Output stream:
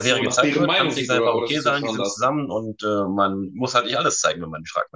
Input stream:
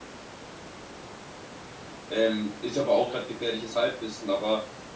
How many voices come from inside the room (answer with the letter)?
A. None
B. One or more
B